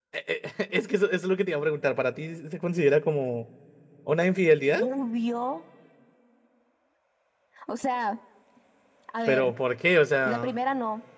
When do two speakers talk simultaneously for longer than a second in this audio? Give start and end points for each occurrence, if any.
none

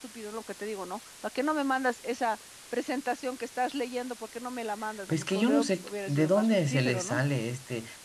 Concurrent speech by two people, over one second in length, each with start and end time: 5.1-7.2

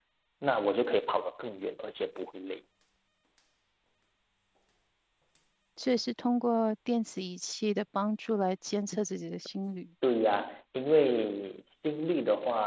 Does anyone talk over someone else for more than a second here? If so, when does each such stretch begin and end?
none

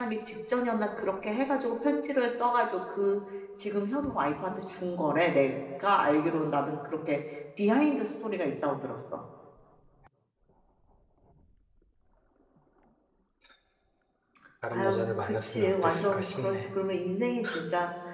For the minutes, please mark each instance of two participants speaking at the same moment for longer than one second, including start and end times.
14.7-16.7

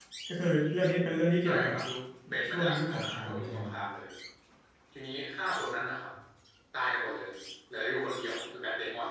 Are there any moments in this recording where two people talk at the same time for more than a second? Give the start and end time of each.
2.5-3.7

